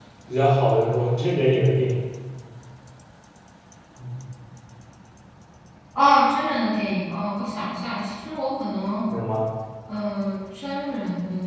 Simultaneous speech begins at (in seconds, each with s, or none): none